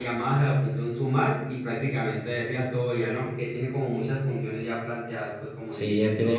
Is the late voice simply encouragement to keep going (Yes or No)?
No